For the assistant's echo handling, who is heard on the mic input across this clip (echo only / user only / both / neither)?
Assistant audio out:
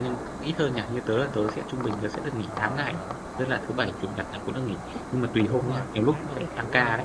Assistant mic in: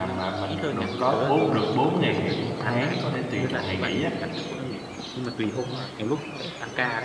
both